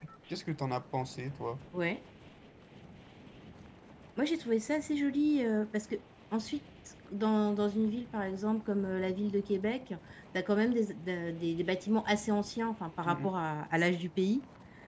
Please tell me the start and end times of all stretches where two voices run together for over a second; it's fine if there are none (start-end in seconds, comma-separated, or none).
none